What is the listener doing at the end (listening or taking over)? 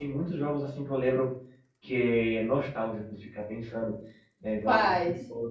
listening